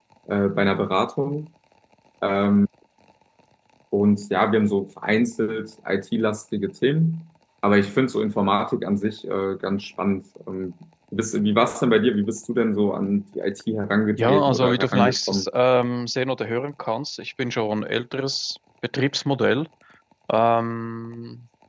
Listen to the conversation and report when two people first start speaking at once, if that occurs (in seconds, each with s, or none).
14.1 s